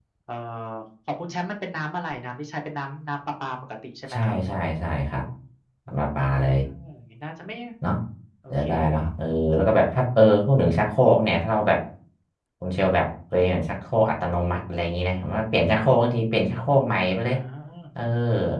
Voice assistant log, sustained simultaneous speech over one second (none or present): none